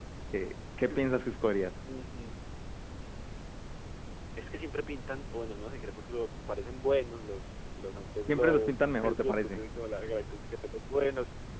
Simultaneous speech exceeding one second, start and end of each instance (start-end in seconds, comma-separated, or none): 8.2-9.6